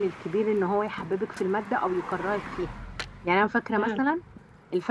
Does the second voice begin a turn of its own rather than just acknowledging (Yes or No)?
No